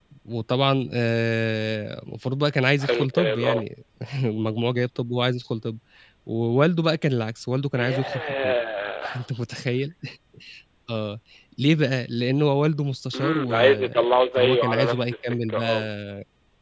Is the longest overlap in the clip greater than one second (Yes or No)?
Yes